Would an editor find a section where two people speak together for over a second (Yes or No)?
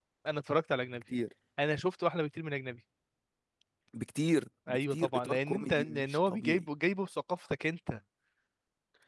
Yes